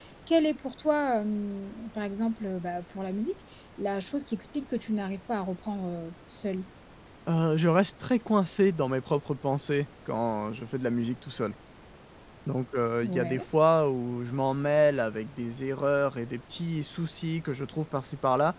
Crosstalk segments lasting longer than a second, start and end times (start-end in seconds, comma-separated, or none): none